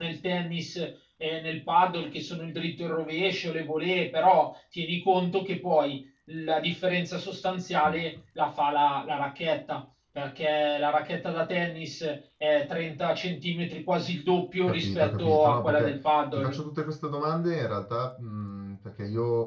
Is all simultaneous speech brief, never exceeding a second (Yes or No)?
No